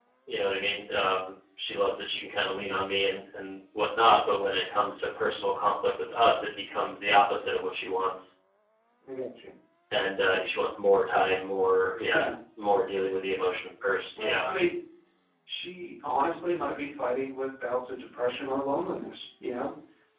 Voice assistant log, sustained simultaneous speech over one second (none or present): none